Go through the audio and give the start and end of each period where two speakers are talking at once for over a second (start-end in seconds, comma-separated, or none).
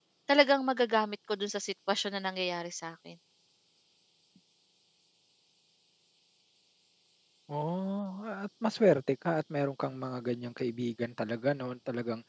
none